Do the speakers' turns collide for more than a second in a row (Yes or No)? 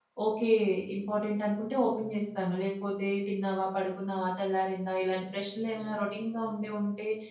No